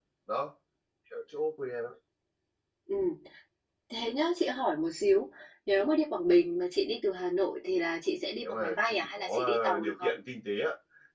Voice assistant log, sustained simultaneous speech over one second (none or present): present